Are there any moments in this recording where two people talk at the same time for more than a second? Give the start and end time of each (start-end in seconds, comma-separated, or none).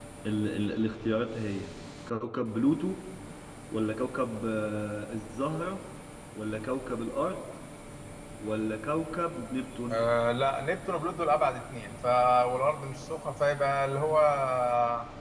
none